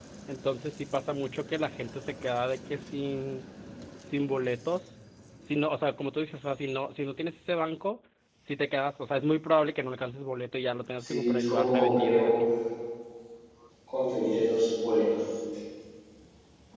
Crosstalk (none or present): present